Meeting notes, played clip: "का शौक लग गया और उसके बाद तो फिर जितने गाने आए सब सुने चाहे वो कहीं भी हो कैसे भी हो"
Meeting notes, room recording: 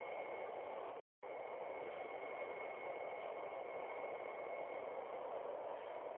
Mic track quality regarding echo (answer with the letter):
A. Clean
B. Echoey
A